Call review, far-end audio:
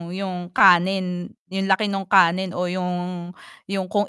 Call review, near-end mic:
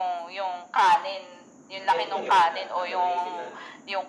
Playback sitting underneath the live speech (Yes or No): No